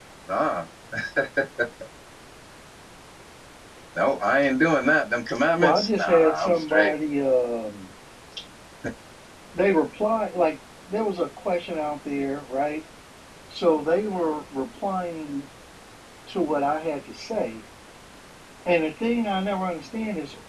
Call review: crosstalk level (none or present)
present